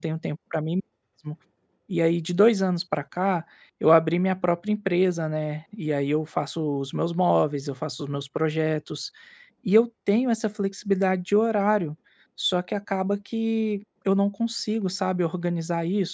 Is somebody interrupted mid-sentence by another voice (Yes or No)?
No